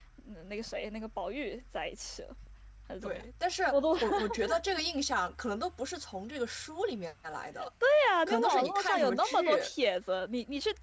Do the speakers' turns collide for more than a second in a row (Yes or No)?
Yes